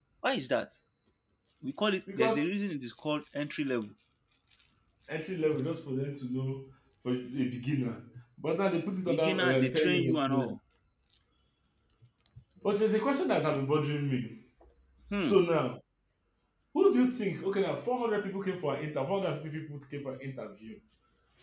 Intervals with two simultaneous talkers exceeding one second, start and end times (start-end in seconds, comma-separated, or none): 9.1-10.6